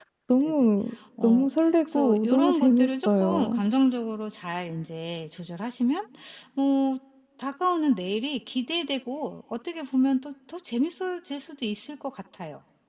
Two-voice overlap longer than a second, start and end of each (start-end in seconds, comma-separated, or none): 1.9-3.6